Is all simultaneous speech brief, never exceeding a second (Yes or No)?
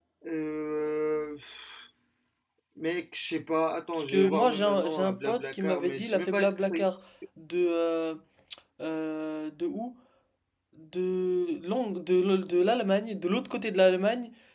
No